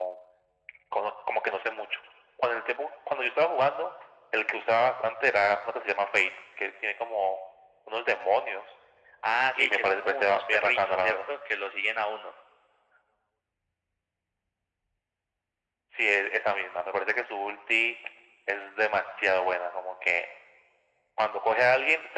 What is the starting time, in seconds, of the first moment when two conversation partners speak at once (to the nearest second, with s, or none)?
10 s